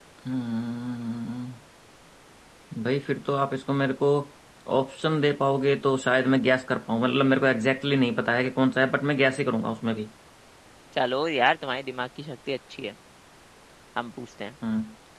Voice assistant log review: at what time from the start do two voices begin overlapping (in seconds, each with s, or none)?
none